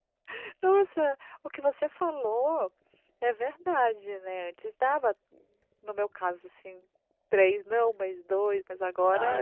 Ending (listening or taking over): taking over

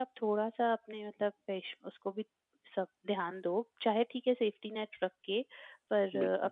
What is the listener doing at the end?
listening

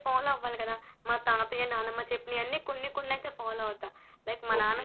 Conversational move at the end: taking over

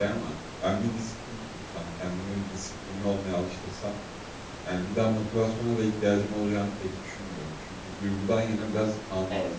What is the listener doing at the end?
listening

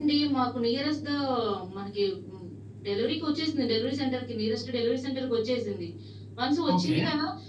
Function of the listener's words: listening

